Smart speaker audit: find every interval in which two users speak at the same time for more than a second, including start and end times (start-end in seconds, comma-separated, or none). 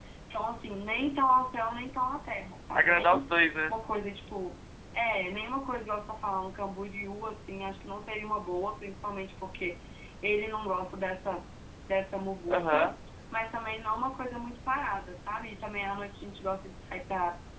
none